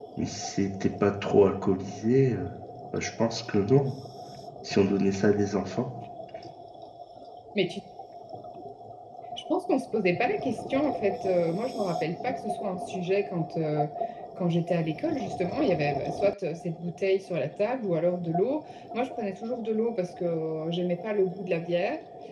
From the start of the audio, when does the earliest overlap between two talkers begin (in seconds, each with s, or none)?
none